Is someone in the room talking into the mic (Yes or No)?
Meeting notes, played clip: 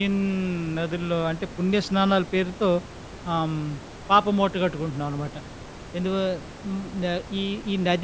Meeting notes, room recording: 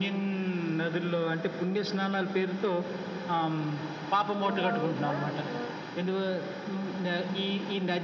Yes